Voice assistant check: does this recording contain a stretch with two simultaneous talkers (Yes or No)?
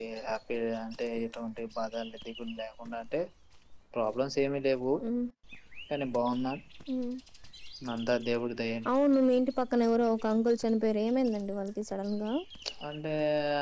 No